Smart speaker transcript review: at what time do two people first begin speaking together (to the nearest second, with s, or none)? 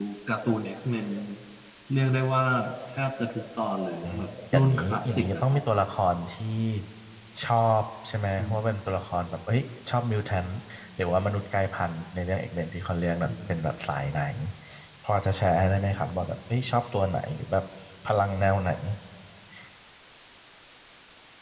4 s